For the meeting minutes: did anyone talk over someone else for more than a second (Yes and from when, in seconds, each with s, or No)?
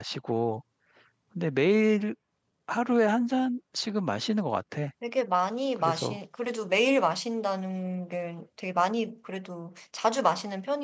No